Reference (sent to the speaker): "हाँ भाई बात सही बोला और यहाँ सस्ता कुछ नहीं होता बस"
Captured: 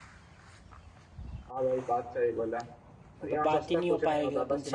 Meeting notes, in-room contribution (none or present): present